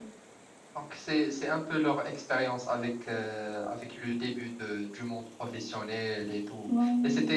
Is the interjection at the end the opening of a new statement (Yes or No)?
No